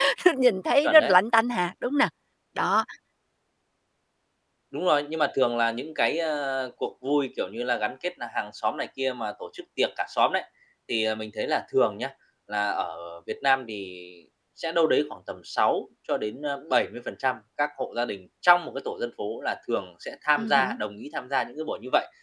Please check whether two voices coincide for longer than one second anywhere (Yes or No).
No